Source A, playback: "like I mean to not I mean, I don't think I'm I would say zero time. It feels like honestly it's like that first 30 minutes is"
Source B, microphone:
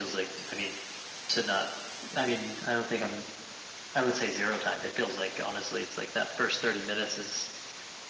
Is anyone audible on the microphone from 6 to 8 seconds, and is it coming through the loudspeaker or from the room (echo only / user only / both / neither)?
echo only